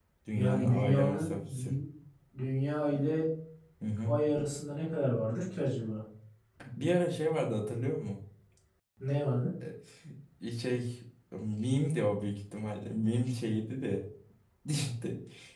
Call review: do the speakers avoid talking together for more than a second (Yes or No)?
No